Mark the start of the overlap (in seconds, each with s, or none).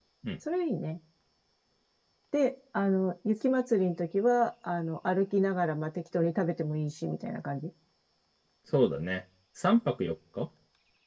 none